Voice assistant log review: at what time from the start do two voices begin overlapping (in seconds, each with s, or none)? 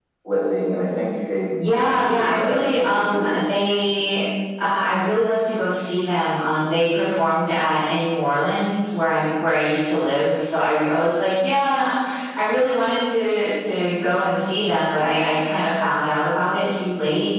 1.9 s